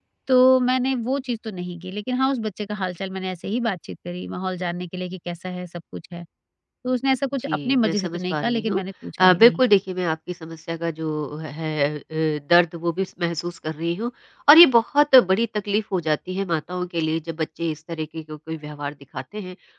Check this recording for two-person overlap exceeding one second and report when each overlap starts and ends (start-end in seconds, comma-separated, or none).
7.5-8.8